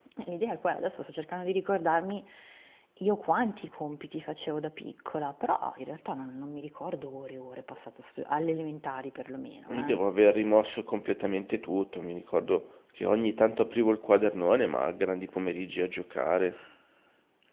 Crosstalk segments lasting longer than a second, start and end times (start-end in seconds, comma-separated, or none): none